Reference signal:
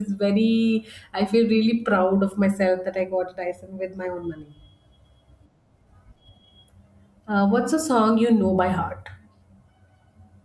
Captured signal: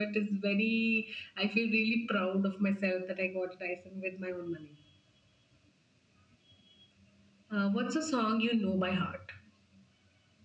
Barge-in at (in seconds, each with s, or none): none